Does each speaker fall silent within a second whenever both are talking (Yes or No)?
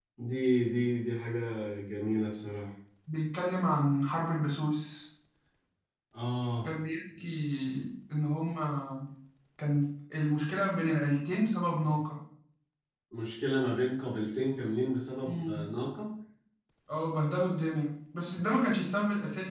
Yes